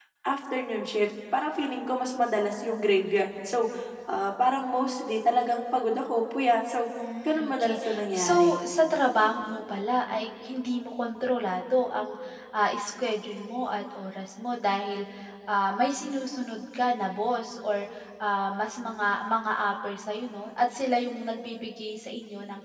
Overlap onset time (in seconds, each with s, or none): 7.2 s